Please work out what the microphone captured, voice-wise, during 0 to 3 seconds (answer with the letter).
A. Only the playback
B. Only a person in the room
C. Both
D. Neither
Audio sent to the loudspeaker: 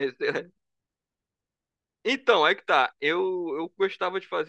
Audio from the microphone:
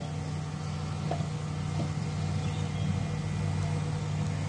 D